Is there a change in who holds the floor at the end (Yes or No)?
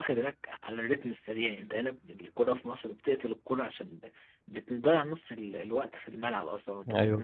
Yes